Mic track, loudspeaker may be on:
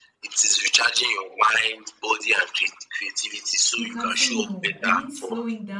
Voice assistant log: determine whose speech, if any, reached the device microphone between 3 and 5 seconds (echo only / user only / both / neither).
both